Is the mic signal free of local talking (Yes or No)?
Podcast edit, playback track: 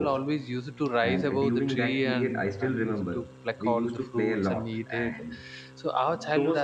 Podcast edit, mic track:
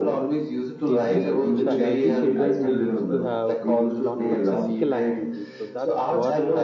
No